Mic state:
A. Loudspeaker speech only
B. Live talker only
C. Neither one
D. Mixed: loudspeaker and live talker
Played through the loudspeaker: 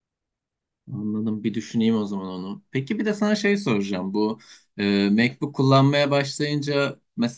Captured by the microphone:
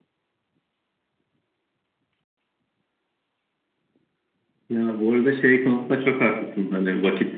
B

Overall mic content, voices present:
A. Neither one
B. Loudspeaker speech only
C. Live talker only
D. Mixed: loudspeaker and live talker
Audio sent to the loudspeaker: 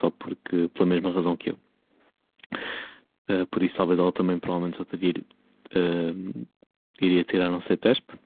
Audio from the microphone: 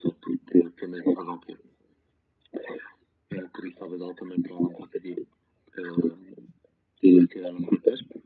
B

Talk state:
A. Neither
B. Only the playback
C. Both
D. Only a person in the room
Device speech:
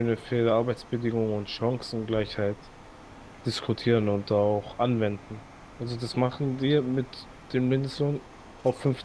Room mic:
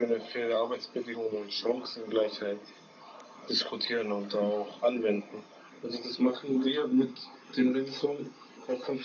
B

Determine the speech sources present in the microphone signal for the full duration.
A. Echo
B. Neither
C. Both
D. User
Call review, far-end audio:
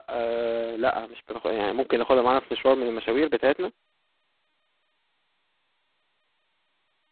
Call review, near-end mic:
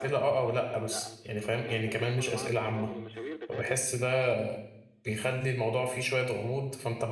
C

